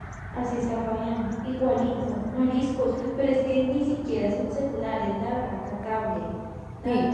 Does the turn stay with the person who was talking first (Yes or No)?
No